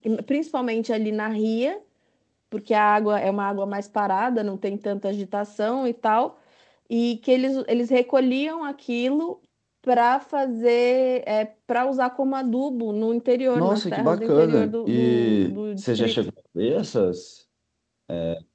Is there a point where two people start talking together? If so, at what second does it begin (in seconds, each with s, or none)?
13.5 s